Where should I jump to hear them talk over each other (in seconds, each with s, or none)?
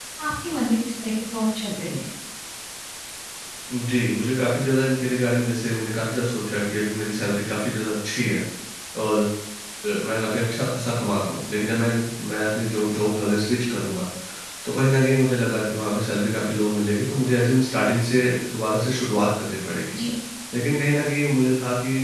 none